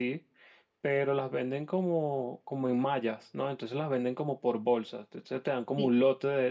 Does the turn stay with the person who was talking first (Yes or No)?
Yes